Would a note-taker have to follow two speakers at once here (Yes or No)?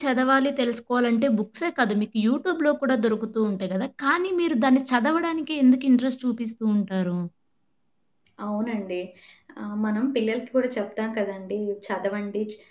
No